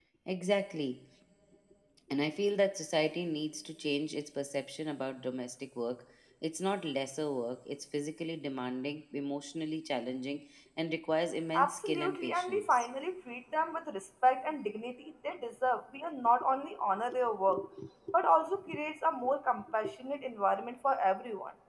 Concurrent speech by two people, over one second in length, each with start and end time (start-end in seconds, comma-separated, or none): 11.6-12.9